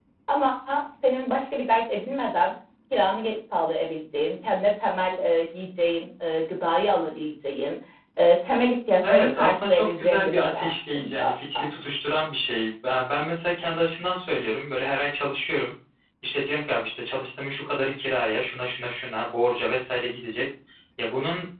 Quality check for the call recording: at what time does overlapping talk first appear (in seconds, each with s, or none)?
9.0 s